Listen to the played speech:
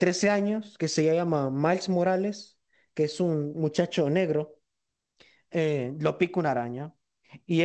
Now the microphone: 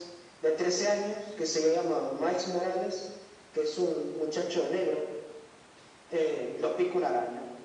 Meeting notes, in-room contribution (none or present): none